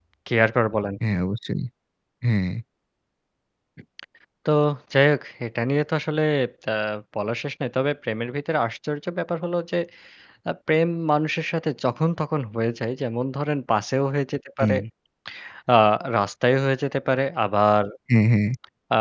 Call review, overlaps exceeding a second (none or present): none